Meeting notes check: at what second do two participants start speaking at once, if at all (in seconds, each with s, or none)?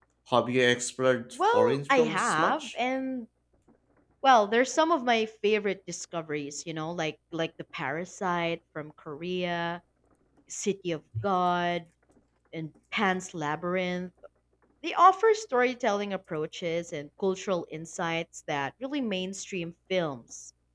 1.4 s